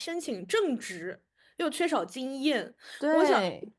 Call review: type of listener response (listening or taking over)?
listening